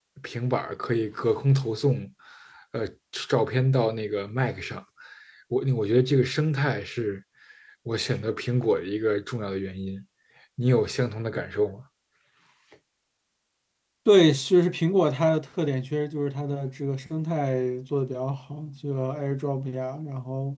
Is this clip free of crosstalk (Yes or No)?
Yes